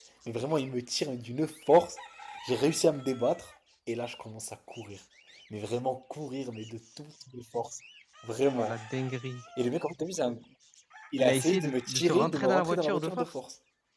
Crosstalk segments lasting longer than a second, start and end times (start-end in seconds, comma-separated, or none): 11.2-13.3